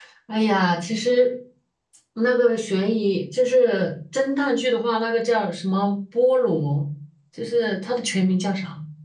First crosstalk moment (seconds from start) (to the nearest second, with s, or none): none